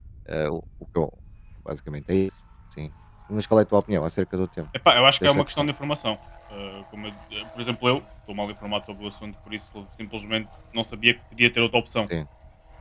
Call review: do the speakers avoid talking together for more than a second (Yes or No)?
Yes